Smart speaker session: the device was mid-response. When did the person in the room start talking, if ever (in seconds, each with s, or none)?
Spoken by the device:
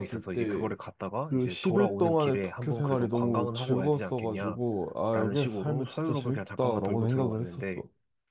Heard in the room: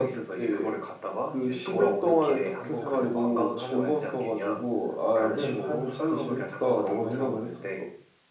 none